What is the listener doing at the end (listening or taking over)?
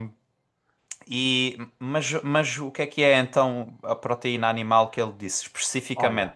listening